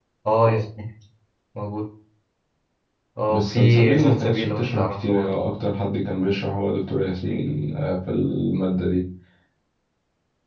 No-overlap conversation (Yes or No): No